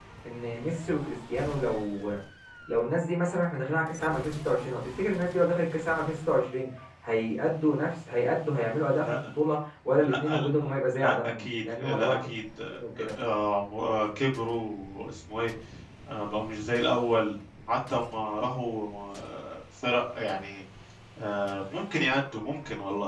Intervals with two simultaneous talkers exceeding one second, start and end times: 11.0-12.2

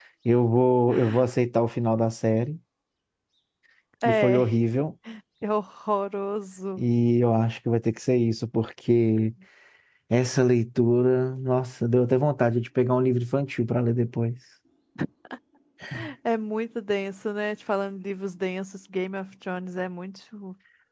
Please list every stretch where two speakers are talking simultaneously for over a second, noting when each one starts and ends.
none

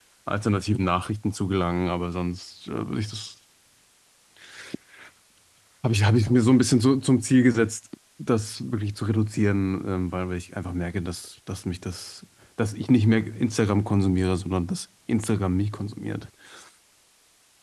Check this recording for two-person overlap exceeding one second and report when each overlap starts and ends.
none

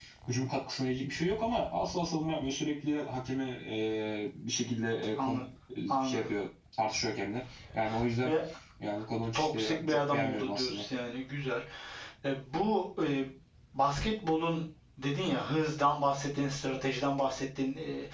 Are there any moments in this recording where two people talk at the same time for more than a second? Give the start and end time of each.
9.3-10.8

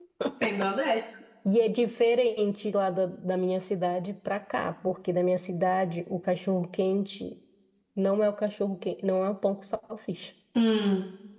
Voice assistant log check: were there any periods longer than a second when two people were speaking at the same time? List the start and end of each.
none

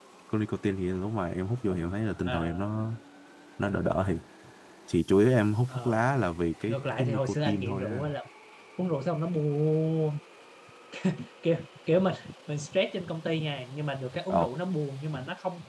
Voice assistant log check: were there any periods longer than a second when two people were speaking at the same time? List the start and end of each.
6.7-8.0

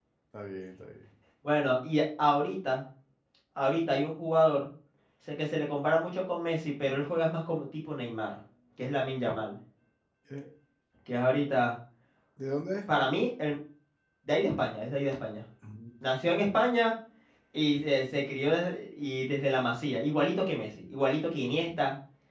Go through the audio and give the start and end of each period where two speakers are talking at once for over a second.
none

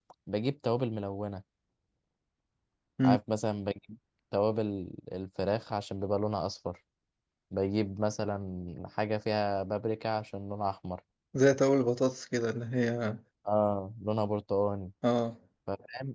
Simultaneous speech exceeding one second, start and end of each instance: none

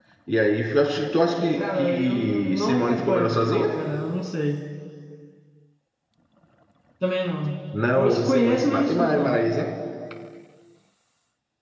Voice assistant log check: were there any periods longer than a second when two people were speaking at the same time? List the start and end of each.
1.6-3.8, 7.9-9.4

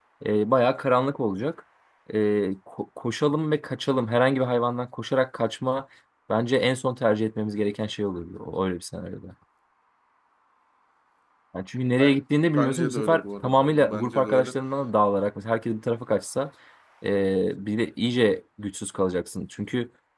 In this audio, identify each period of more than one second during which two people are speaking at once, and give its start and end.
12.6-14.5

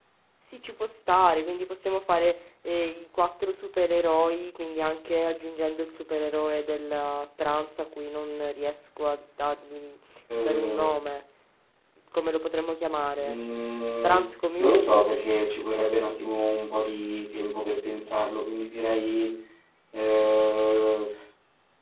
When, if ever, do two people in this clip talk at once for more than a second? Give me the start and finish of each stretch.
none

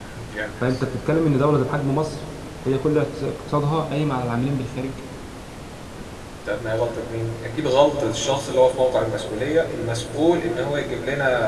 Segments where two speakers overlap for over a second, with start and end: none

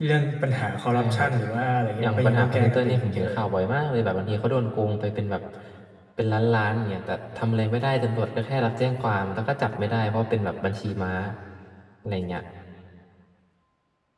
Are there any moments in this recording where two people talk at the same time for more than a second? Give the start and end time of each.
2.0-3.4

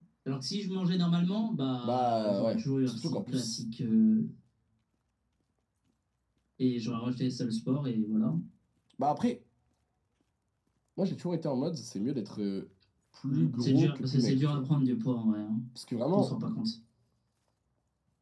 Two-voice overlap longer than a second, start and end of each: 1.8-3.6, 13.3-14.7

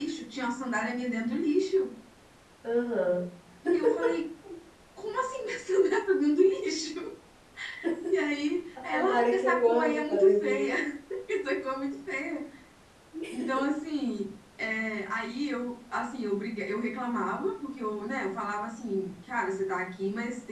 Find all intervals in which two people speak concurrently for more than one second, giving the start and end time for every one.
8.8-10.7

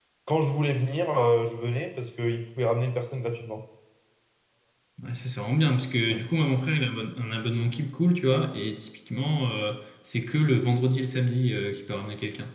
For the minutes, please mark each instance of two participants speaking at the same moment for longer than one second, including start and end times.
none

